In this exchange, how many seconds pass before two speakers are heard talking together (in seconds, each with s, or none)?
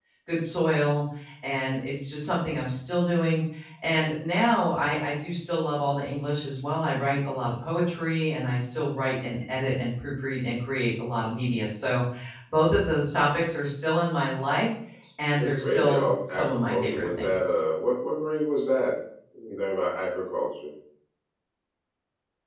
15.4 s